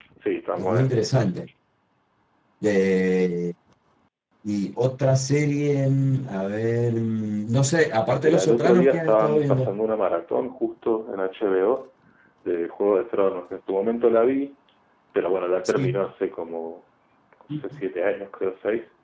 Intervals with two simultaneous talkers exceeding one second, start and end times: 8.2-9.8

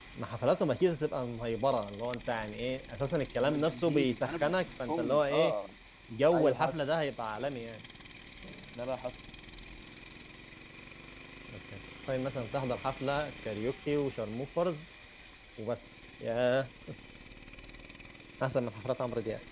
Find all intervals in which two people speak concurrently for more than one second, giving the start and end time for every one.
3.4-5.5

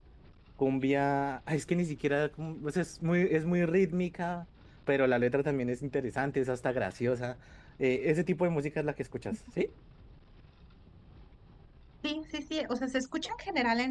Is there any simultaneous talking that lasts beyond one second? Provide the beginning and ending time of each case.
none

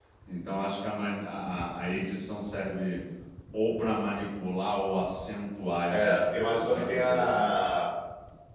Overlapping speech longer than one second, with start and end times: 5.9-7.5

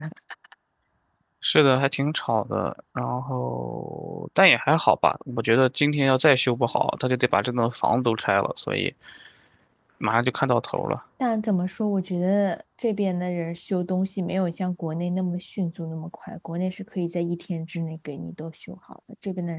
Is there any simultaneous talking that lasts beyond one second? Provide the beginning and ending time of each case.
none

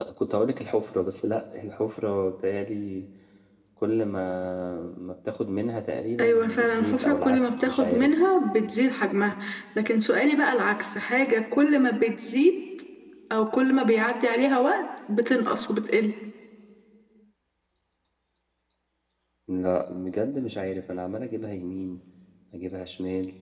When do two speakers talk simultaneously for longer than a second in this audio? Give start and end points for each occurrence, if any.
6.2-8.1

